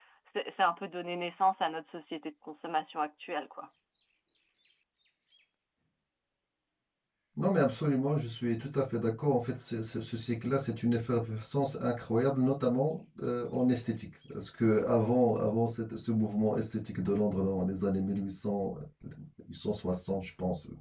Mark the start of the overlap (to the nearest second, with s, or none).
none